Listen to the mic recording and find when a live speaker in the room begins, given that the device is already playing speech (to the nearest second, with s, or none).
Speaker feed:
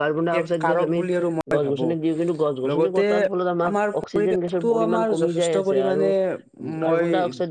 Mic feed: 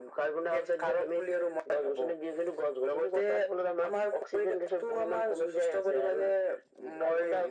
none